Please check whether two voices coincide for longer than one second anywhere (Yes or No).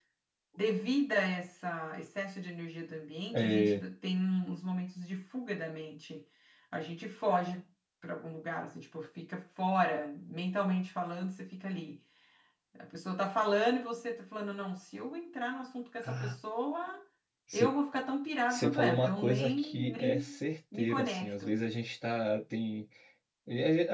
Yes